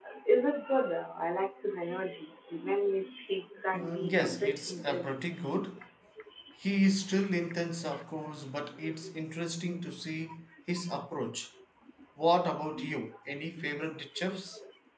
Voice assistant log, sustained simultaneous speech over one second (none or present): present